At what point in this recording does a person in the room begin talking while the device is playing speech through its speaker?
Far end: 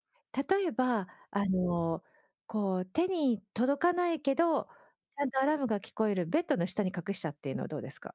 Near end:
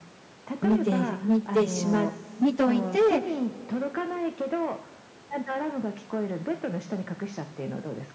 0.6 s

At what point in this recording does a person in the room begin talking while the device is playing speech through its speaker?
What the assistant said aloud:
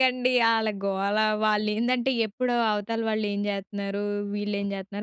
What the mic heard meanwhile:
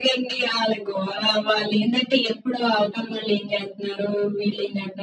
none

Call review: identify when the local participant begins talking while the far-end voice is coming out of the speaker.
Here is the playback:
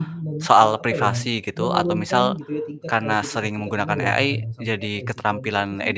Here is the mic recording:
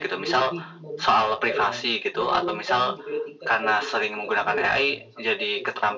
none

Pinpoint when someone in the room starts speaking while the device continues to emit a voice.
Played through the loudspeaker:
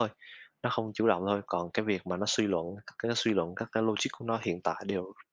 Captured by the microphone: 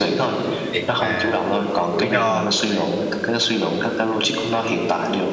0.7 s

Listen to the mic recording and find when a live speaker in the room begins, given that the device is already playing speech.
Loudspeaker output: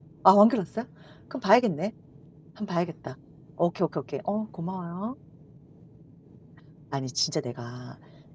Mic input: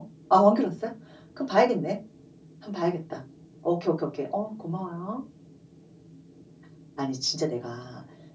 none

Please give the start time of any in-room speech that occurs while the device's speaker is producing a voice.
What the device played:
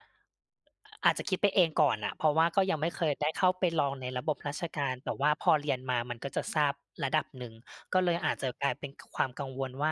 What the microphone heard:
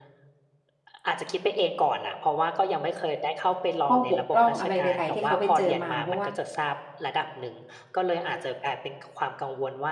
3.9 s

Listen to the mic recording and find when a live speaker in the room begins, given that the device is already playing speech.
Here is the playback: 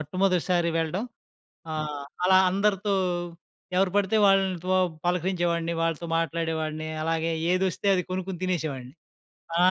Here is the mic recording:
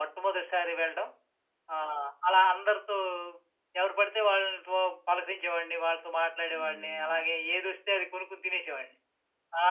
6.5 s

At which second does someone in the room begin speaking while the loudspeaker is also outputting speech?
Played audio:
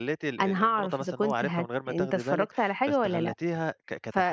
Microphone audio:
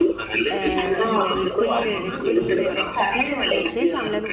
0.5 s

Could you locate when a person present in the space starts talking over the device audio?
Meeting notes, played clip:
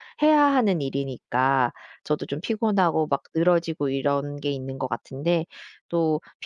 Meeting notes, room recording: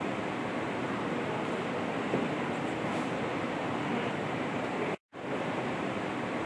none

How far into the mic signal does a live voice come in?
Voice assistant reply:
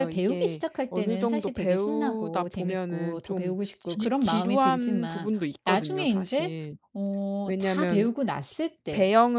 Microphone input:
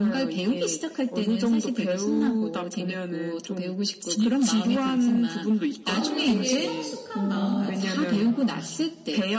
5.9 s

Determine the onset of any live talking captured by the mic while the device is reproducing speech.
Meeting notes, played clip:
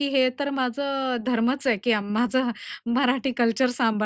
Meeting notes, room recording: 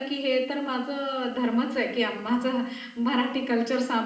none

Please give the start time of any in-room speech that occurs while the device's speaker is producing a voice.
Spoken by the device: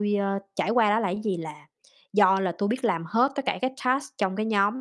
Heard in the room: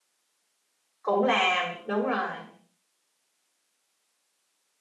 1.0 s

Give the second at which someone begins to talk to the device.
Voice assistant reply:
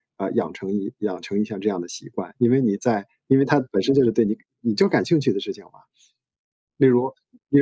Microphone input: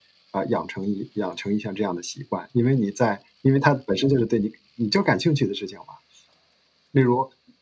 none

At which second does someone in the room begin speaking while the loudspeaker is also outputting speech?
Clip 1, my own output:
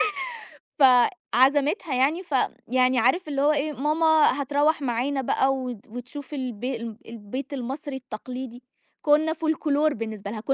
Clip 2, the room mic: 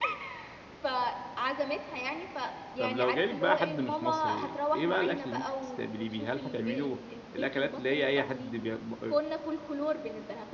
2.8 s

